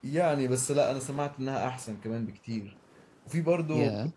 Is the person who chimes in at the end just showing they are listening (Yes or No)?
Yes